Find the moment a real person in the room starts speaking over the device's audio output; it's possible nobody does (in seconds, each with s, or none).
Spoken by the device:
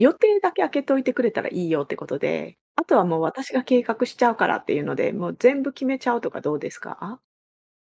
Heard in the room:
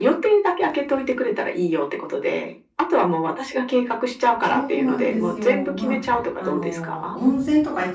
4.4 s